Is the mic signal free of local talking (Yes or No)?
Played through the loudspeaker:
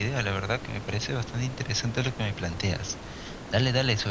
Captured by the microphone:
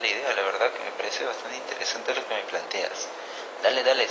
Yes